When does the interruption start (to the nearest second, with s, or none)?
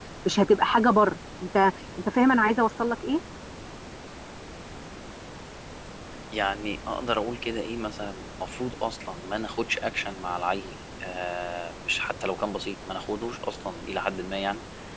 none